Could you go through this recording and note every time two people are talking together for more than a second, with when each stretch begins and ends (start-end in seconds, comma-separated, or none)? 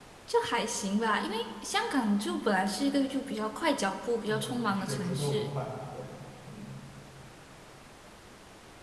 4.3-5.5